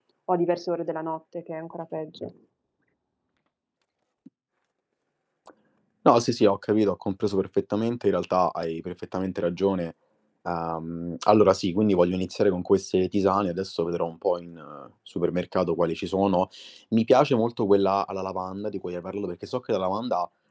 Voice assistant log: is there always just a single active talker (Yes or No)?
Yes